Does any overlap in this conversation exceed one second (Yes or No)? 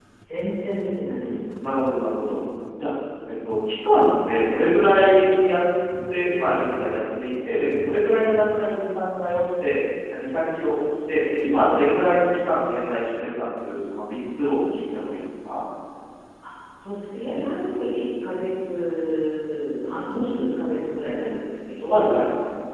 No